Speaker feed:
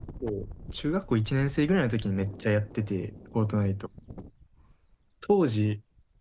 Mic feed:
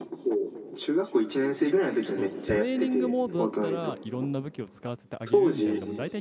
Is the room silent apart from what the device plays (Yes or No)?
No